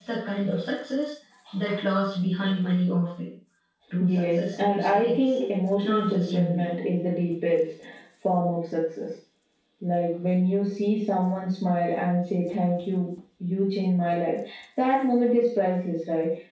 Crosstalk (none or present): present